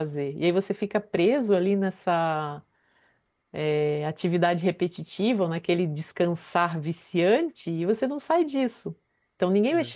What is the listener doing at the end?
listening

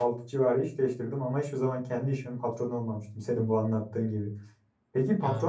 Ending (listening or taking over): listening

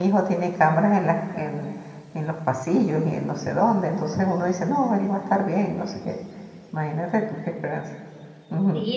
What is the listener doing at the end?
taking over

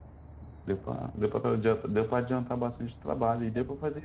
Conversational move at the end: listening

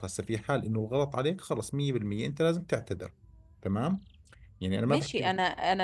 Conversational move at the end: taking over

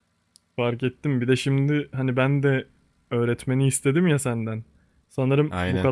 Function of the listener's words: listening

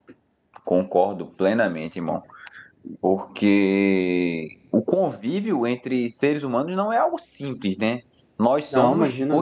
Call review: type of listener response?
listening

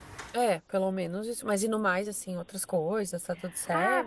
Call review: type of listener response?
taking over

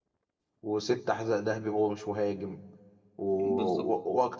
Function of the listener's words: listening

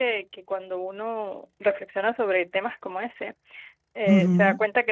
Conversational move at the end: listening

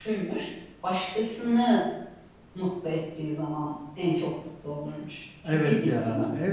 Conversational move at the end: taking over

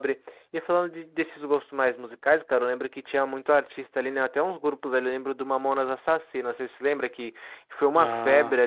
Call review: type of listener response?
listening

